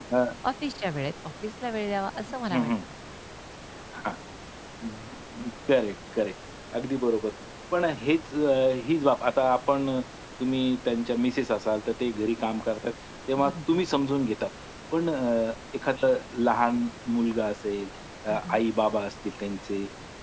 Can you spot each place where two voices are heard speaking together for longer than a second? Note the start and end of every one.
none

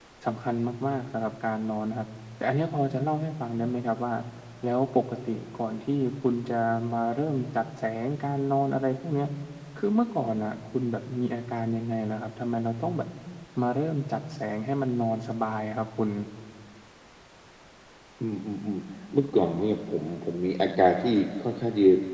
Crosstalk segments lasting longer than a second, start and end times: none

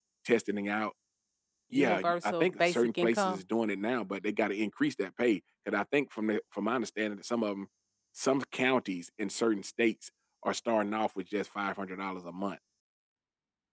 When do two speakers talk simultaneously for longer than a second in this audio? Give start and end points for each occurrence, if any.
1.7-3.4

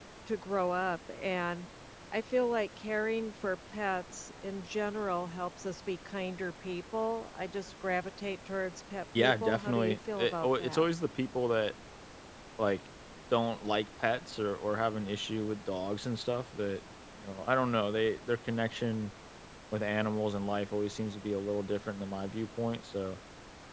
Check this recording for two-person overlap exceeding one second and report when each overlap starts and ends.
9.2-10.8

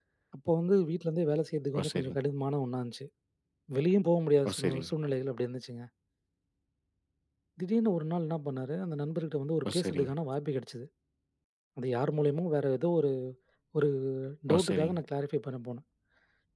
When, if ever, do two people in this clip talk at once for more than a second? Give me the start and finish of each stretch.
none

